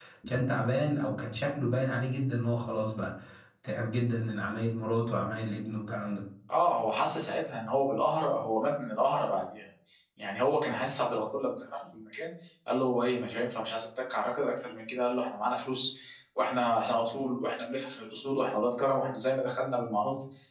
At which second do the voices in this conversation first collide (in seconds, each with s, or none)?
none